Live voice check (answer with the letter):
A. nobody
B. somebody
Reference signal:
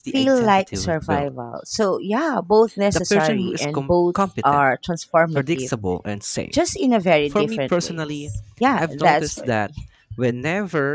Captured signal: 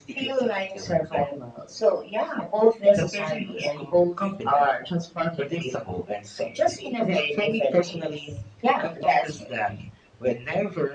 A